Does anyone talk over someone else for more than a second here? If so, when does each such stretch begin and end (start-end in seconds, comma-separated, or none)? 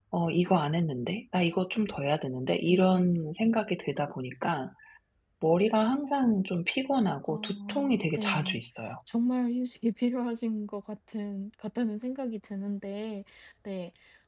7.3-8.6